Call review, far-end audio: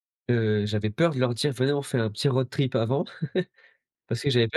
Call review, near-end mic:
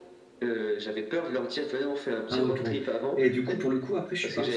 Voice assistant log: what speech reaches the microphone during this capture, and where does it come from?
both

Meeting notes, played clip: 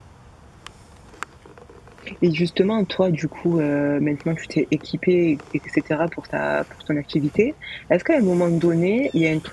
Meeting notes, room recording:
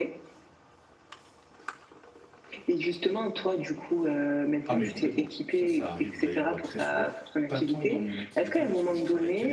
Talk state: both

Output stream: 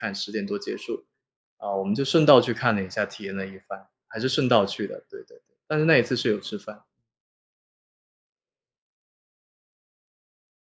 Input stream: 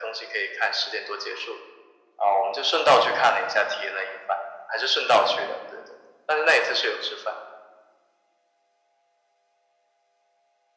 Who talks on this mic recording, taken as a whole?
echo only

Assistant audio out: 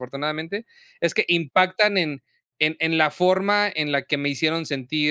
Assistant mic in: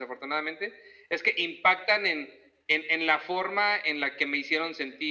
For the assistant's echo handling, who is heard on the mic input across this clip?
echo only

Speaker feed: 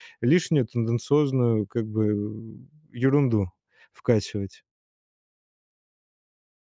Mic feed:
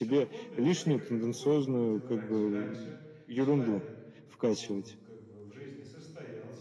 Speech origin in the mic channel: both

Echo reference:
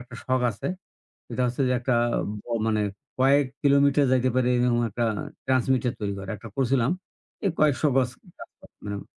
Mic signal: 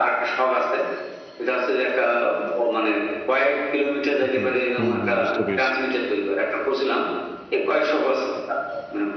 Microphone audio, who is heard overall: both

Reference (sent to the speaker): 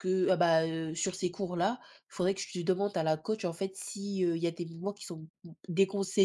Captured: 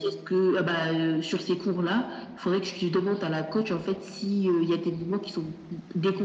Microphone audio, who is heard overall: echo only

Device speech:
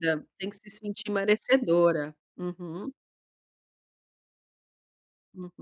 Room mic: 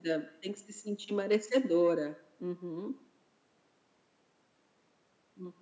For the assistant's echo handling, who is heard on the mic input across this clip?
echo only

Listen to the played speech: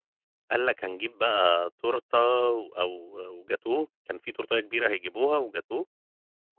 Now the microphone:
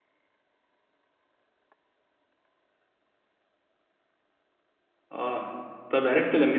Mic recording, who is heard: user only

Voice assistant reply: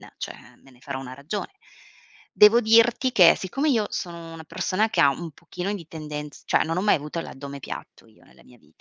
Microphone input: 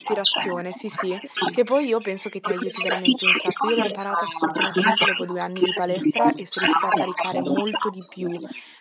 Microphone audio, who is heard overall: both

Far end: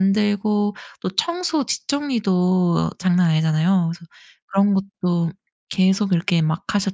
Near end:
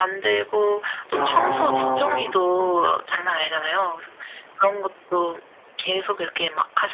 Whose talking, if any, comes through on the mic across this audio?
both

